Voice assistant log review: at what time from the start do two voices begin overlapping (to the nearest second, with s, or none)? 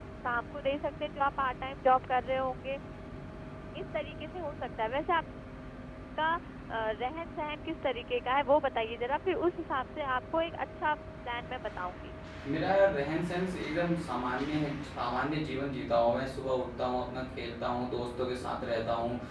none